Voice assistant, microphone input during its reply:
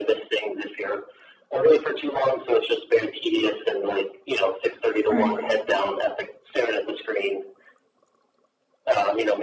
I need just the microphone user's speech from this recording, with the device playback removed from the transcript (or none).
mhm,